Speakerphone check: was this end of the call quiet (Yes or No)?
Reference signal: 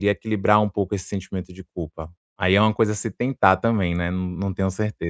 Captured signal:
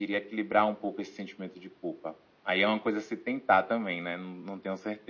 Yes